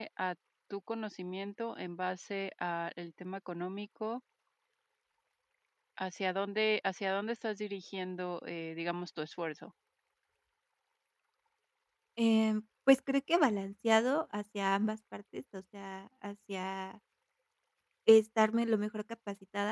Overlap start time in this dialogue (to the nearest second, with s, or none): none